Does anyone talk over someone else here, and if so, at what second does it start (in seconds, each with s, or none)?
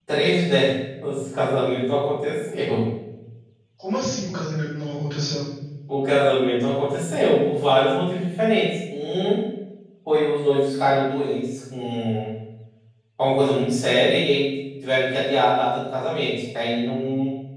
none